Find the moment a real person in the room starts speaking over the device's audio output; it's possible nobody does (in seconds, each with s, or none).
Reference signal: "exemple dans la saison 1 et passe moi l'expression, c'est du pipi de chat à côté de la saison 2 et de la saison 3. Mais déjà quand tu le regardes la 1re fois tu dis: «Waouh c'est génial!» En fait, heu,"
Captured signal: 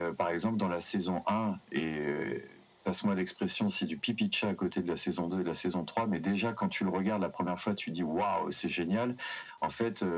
none